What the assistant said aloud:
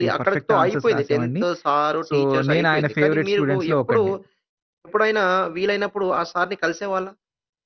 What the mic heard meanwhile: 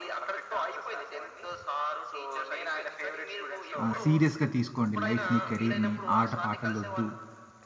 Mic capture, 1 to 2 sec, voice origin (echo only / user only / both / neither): echo only